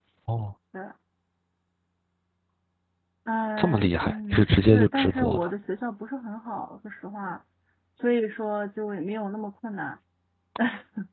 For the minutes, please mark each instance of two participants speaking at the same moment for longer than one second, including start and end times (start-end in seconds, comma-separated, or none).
3.6-5.5